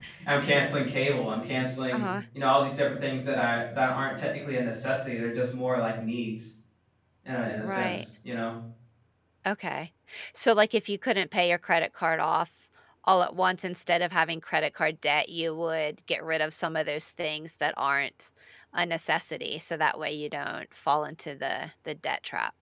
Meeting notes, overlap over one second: none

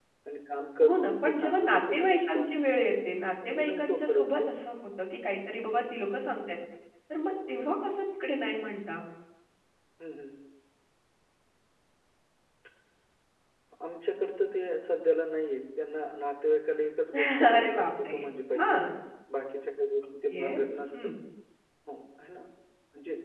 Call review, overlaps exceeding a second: present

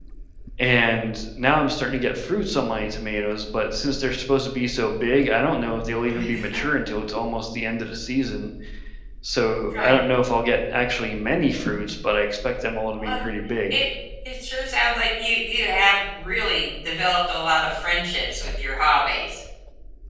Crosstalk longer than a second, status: none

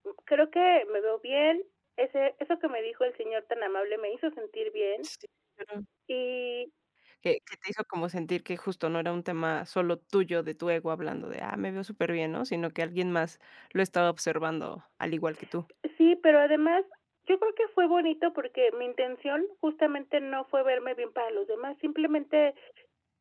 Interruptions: none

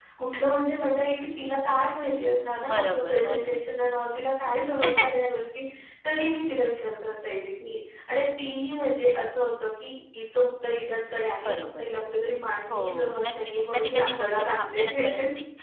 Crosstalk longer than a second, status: present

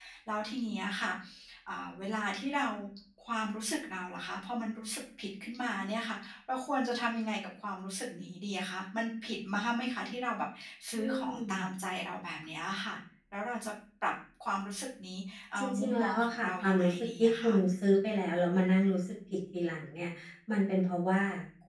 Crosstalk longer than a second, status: present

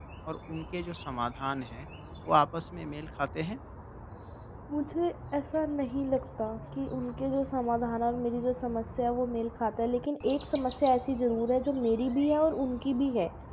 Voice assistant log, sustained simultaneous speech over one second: none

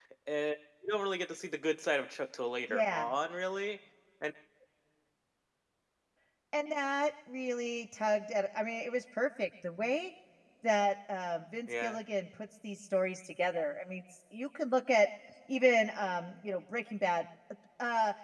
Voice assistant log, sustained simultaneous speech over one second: none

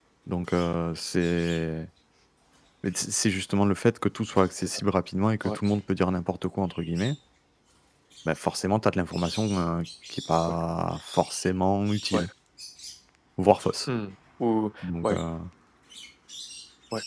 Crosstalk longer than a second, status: none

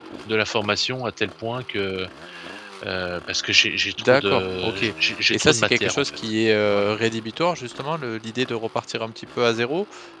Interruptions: present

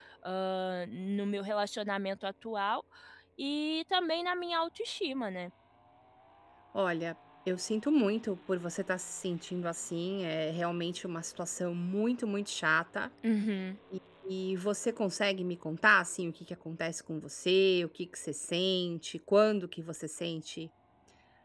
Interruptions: none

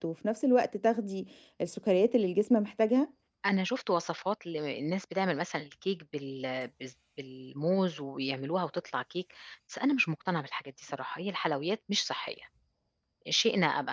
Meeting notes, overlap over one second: none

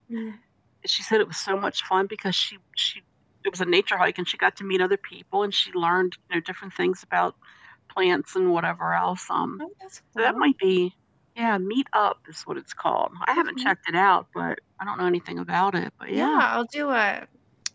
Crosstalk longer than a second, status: none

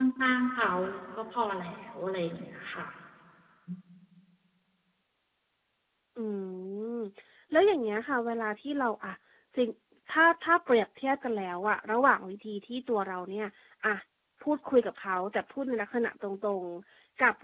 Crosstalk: none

